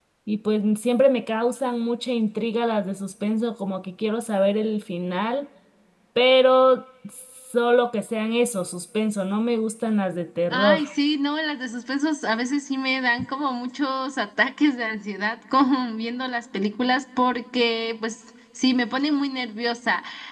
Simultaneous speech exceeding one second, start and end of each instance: none

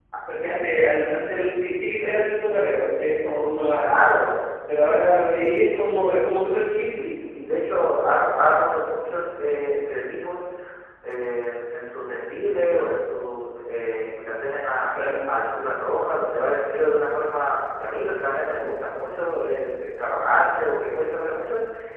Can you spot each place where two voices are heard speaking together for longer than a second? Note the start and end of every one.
none

